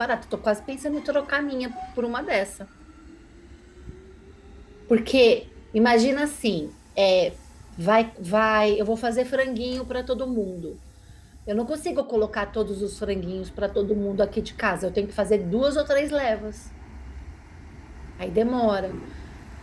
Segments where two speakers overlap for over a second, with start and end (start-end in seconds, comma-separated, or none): none